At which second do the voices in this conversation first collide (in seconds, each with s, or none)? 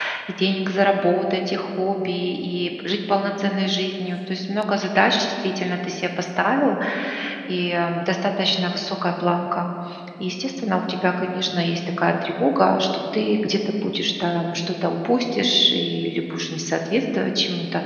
none